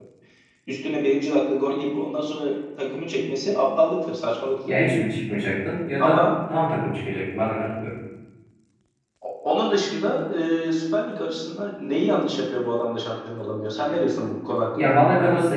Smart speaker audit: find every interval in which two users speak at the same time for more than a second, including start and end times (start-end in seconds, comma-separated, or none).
none